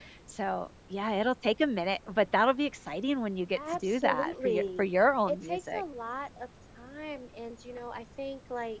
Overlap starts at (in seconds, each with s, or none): 3.5 s